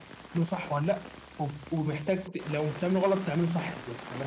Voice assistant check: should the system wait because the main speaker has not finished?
No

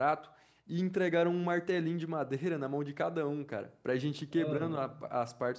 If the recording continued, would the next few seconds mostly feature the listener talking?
No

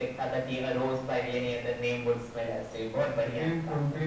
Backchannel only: No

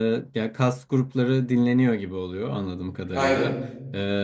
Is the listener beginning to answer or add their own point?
No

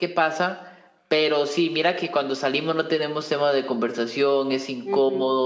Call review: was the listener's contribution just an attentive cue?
Yes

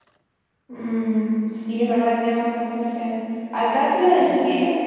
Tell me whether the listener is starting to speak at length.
No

